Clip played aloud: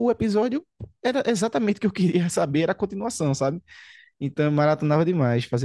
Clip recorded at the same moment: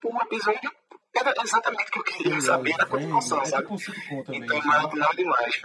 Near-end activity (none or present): present